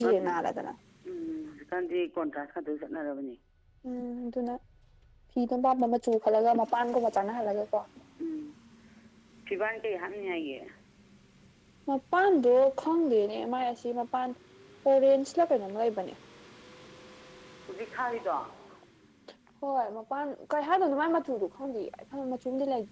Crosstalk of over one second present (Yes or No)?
No